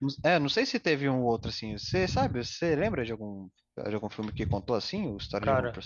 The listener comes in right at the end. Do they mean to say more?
Yes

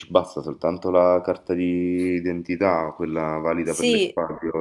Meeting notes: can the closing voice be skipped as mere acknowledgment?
No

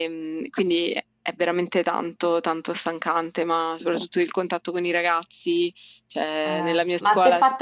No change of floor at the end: No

